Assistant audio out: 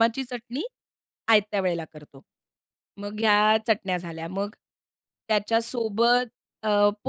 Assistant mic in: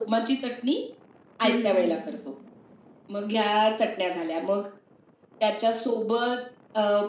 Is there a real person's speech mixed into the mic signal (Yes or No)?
Yes